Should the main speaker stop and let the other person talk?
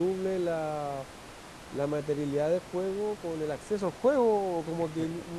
No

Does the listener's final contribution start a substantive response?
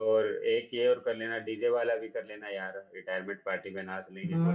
Yes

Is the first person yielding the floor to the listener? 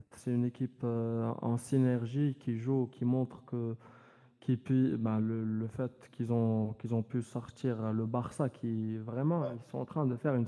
No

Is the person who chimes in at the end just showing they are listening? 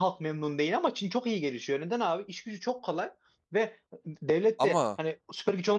Yes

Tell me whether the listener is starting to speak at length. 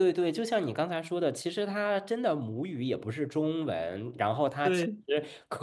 No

